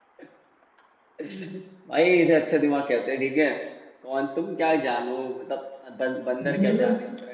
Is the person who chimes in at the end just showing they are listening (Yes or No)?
No